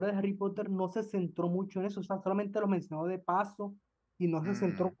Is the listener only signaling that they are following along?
Yes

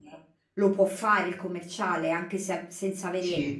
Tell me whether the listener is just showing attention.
No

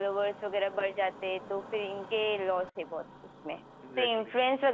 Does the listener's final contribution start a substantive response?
No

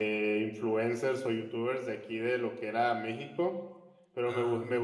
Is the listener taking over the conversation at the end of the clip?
No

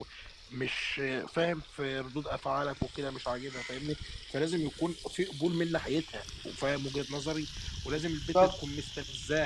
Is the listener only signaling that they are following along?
Yes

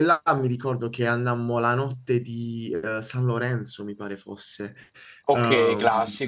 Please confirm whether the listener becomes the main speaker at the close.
No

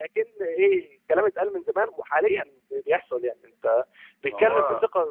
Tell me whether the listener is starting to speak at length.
No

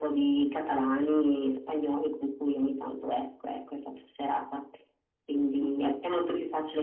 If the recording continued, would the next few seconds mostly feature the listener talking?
No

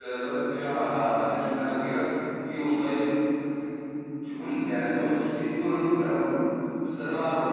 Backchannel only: Yes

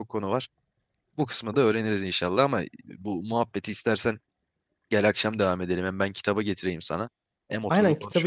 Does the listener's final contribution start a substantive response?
Yes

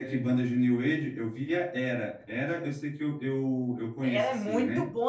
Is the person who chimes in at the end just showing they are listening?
No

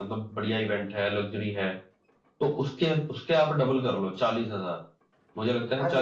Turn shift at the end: Yes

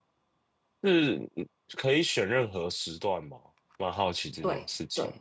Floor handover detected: Yes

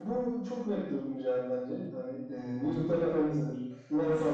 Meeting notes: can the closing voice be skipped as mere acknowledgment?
No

